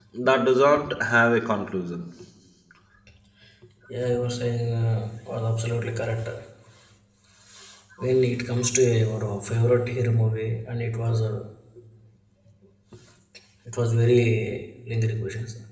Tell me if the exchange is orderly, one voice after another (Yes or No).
Yes